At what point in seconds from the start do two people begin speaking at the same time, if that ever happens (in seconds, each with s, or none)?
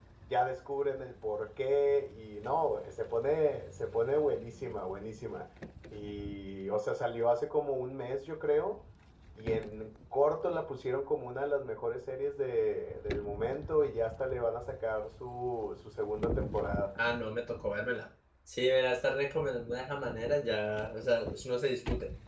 none